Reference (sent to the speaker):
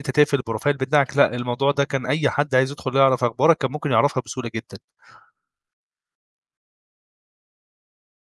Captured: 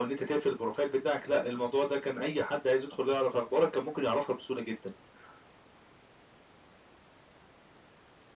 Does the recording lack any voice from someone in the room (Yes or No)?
Yes